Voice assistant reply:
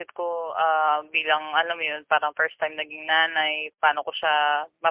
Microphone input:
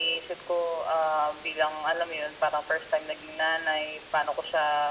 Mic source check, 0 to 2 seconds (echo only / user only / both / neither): echo only